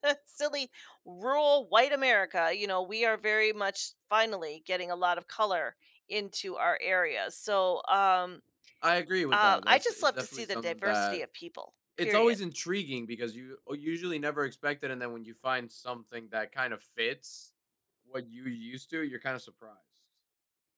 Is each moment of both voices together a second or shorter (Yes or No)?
No